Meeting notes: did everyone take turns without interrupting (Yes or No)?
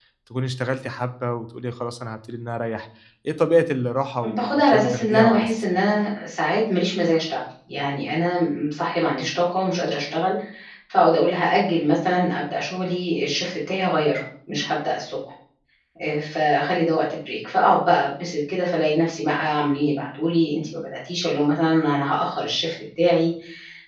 No